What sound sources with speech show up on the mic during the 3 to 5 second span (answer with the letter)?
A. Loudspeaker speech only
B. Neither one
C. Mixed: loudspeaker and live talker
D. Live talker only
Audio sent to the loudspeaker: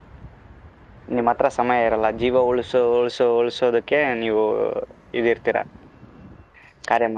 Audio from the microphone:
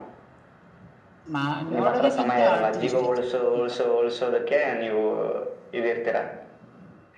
C